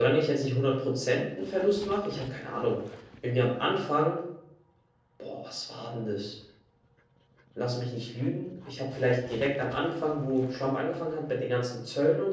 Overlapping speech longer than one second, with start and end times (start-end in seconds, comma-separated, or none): none